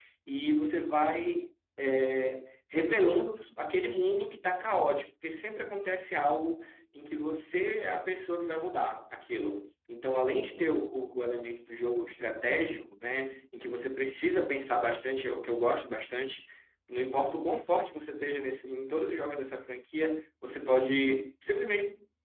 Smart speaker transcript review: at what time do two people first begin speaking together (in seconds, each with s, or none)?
none